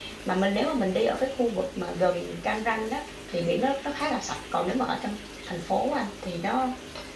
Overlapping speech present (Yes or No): No